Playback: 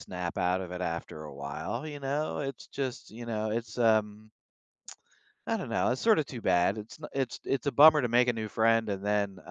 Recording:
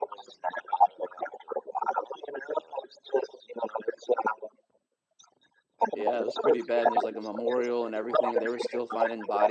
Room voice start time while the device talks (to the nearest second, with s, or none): 6 s